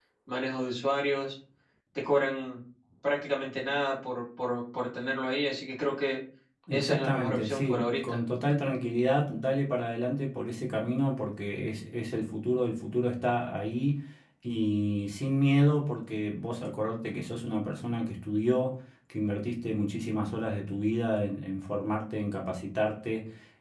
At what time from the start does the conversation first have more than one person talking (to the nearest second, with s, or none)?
7 s